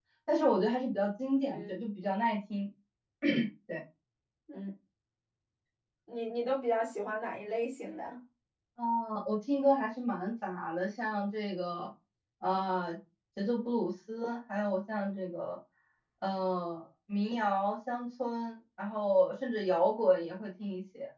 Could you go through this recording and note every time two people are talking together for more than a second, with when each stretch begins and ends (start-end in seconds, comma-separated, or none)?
none